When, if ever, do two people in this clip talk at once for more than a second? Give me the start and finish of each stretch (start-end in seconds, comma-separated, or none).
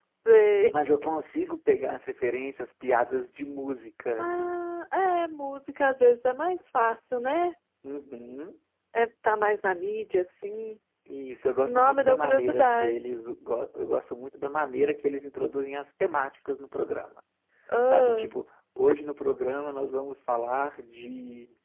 11.6-12.9